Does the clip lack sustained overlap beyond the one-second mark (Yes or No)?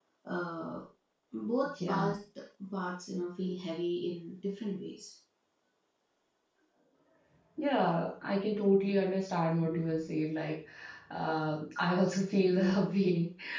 Yes